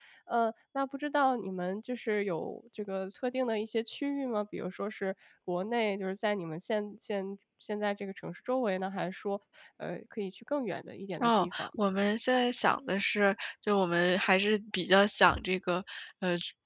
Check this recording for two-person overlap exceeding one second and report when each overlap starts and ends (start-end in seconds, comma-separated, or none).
none